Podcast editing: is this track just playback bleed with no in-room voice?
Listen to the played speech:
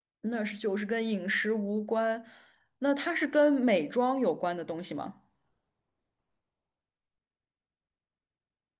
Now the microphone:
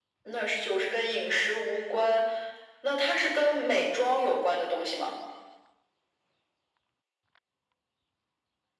Yes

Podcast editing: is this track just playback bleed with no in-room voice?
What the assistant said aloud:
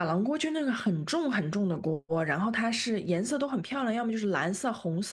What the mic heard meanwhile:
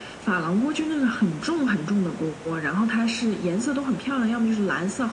Yes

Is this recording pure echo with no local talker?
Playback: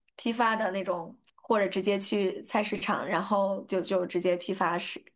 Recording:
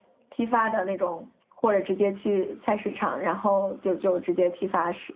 Yes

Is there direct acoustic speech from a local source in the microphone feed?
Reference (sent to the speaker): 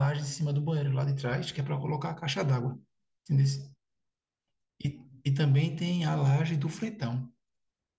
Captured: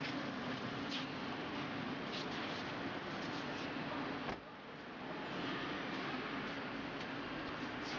No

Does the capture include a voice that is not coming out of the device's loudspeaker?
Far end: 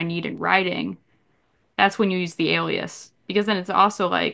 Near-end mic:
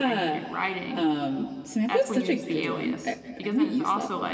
Yes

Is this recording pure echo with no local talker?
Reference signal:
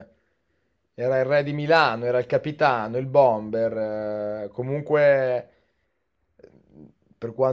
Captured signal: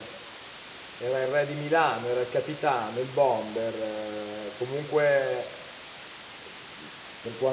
Yes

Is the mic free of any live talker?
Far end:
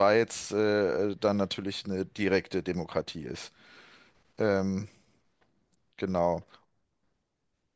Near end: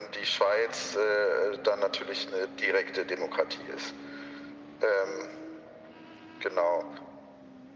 Yes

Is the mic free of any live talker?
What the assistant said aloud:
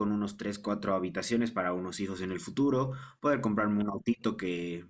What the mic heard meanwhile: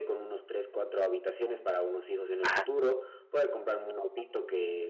No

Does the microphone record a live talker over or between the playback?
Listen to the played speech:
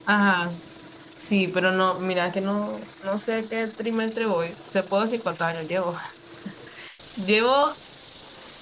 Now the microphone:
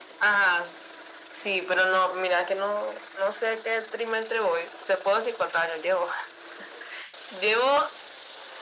No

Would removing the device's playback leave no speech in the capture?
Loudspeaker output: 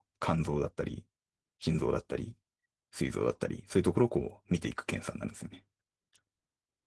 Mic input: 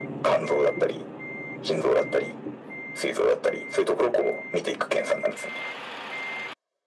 Yes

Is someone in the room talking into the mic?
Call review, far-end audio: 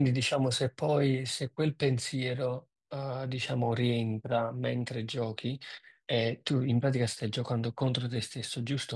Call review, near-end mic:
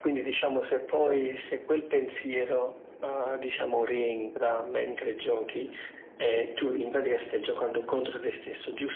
No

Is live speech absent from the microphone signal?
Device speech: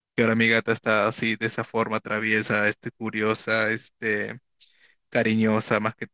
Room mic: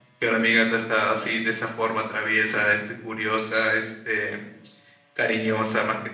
Yes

